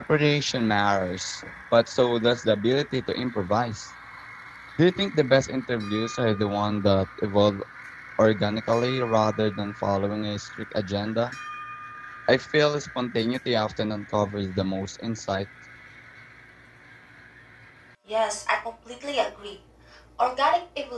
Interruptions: none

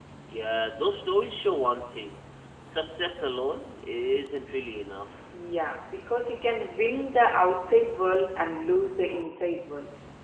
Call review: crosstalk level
none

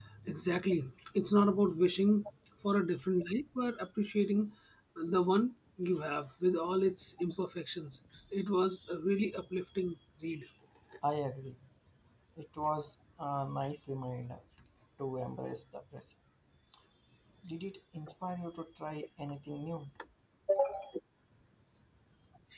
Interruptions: none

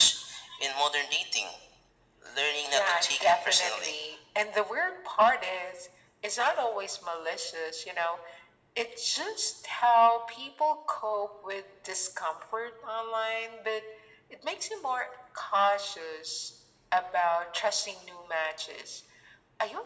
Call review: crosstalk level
present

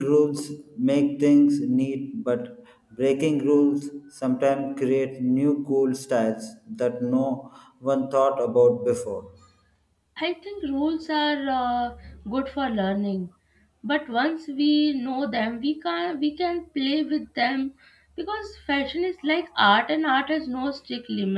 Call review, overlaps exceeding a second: none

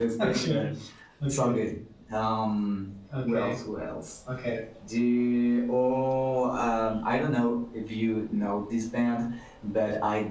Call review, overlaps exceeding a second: none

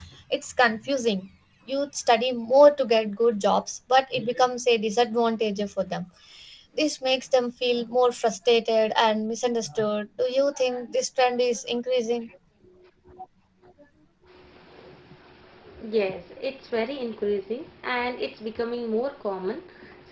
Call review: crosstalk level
none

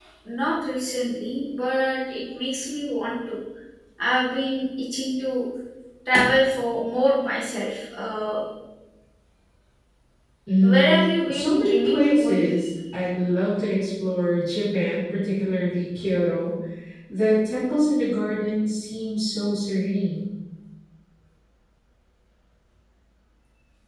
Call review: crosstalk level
present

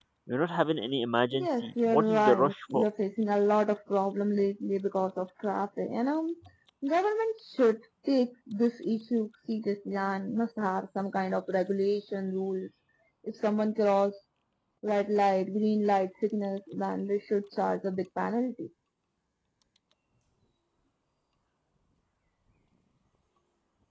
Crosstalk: present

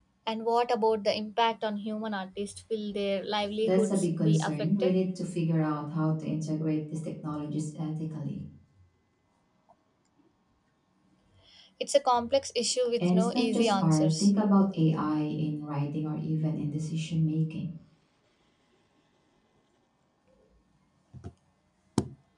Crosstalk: present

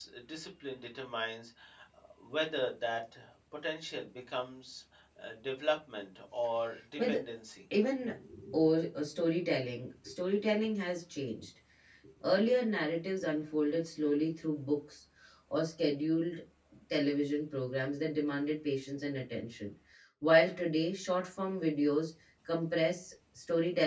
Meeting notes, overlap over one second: none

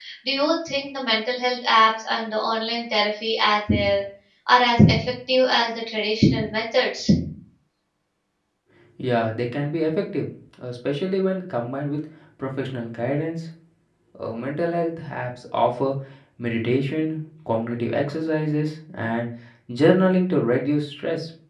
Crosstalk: none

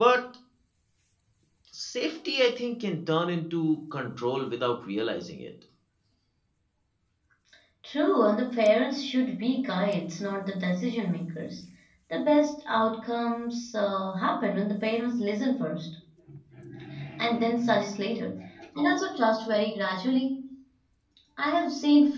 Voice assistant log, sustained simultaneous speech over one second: none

